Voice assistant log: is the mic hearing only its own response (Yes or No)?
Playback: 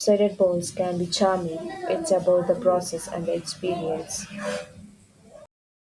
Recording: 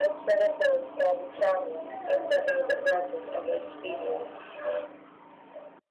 Yes